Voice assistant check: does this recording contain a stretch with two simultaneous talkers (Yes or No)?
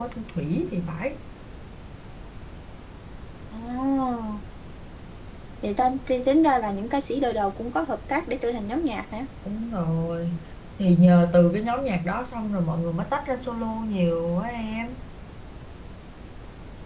No